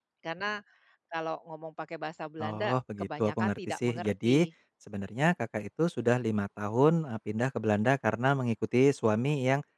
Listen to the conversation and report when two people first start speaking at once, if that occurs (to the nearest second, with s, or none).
2 s